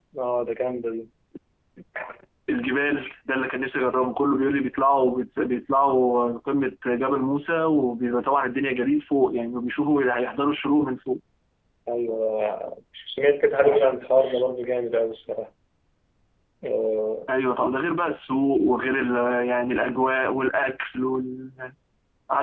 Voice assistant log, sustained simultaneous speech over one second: none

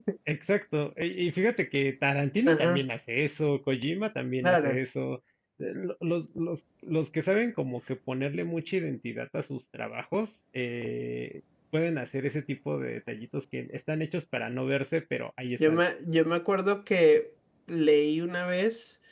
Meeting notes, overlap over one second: none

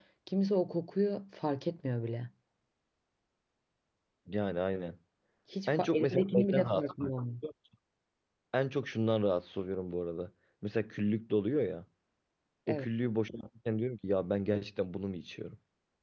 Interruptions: present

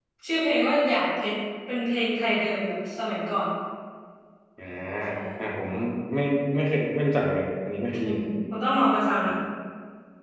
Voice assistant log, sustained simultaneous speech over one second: none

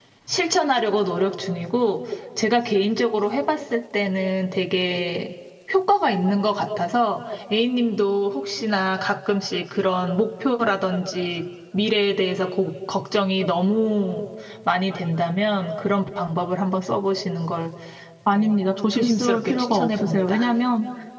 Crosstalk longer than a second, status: present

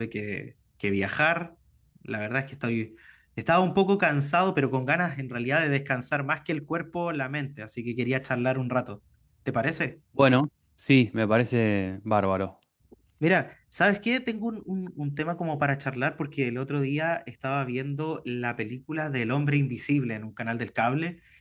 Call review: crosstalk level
none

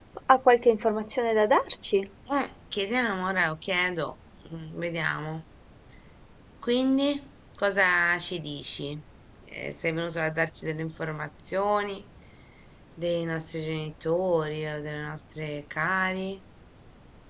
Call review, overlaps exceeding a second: none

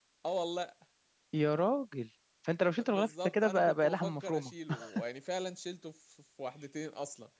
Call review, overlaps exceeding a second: present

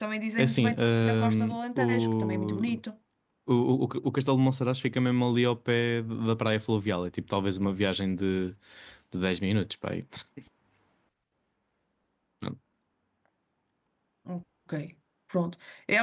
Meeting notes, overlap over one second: present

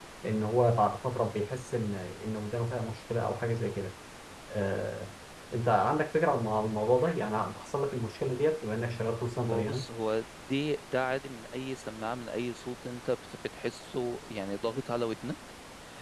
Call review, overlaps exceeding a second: none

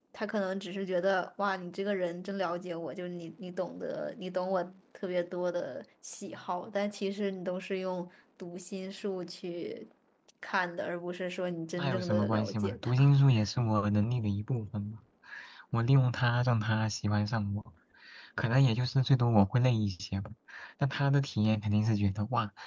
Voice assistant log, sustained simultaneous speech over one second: present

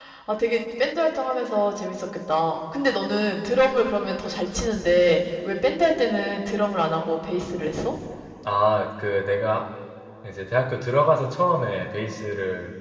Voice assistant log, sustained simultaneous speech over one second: none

